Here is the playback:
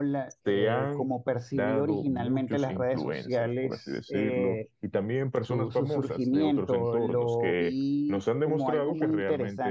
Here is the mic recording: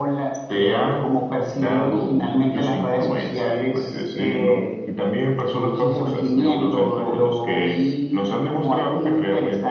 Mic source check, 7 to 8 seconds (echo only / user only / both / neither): echo only